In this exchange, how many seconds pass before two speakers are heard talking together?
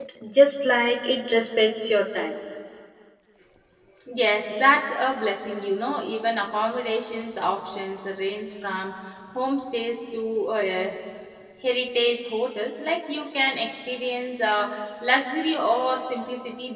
none

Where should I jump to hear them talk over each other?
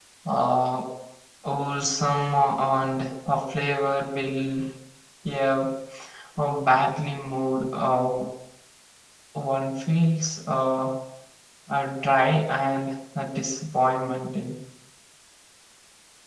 none

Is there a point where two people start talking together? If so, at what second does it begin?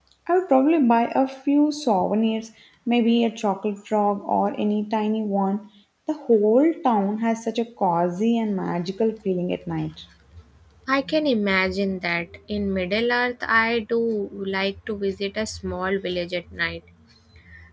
none

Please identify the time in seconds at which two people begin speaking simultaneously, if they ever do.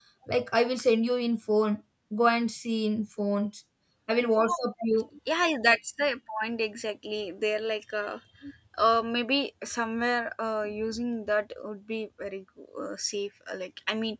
none

